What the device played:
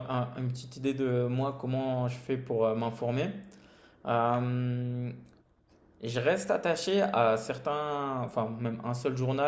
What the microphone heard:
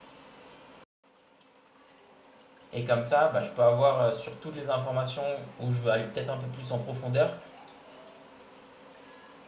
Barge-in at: 2.7 s

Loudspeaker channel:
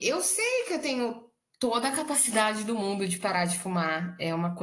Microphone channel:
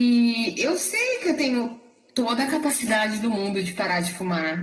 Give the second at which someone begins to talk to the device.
none

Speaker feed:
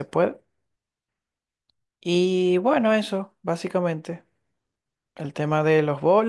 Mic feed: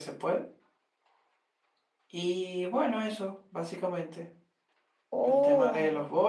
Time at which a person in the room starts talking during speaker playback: 5.1 s

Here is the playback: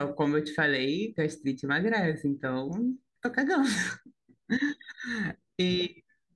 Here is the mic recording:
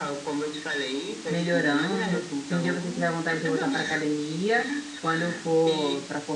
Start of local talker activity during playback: 1.3 s

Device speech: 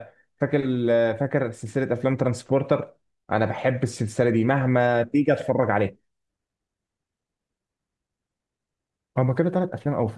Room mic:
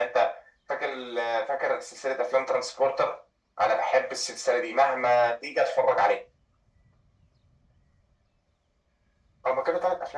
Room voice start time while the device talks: none

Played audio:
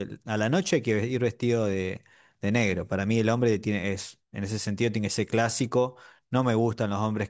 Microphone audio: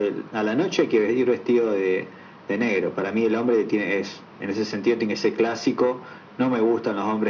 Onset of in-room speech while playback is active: none

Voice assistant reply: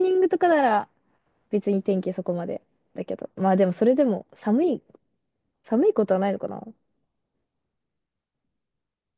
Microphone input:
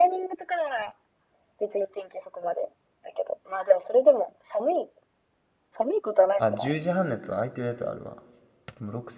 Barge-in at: 6.4 s

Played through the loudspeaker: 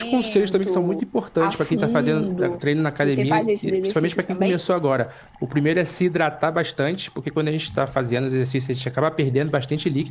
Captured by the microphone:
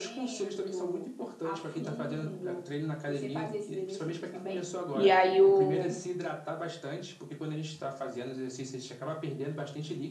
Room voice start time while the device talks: 4.9 s

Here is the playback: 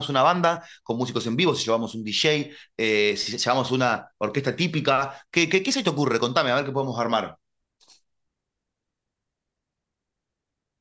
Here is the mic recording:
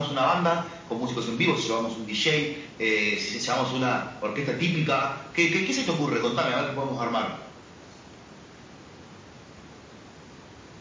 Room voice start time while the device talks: none

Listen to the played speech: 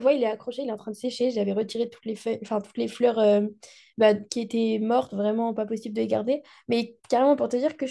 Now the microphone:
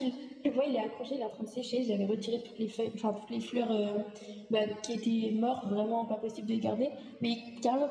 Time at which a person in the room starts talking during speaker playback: none

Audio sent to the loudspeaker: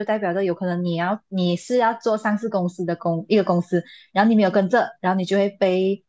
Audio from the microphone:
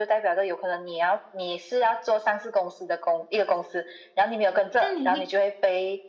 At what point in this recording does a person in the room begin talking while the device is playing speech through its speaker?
4.8 s

